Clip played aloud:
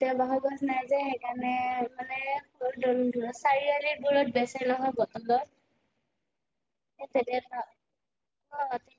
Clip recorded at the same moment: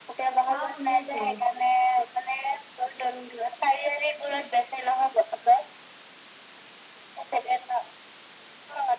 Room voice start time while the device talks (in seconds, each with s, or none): 0.5 s